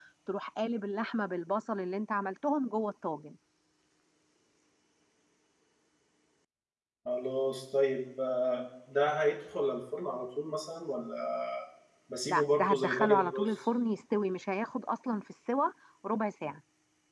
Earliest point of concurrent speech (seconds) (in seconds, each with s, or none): 12.3 s